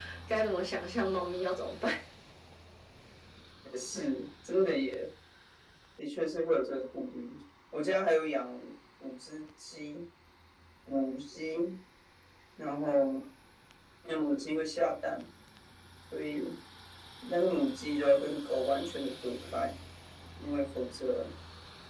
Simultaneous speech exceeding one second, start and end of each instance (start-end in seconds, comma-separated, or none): none